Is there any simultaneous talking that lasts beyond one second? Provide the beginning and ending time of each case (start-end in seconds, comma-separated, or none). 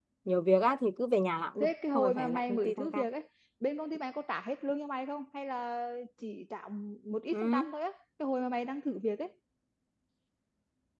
1.6-3.0